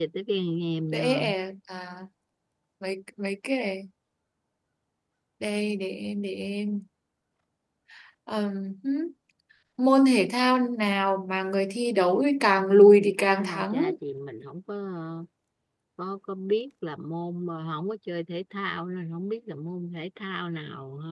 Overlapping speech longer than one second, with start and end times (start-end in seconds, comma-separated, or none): 12.6-13.8